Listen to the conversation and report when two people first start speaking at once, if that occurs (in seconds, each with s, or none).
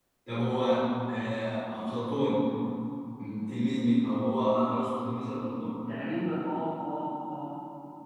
none